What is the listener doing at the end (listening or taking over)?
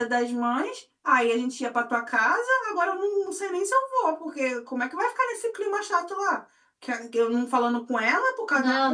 listening